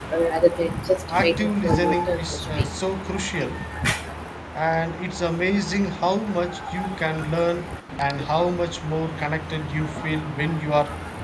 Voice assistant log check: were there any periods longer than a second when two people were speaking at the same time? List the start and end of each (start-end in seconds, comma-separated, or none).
1.1-2.7